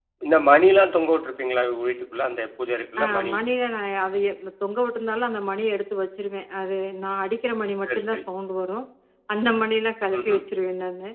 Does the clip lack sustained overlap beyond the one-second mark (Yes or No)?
Yes